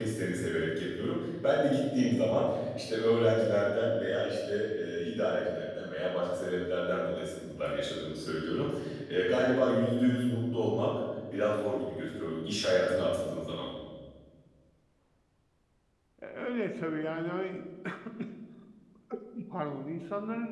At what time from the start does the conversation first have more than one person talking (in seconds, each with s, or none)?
none